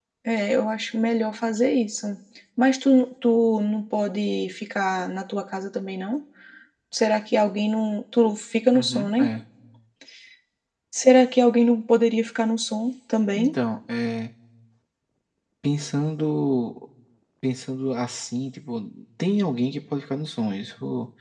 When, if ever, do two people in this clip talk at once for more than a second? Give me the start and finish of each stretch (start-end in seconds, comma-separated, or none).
none